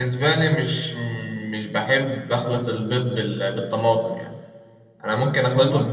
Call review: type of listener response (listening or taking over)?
listening